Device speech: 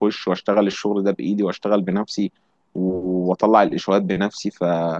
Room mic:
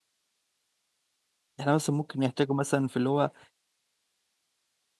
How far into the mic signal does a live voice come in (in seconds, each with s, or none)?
1.6 s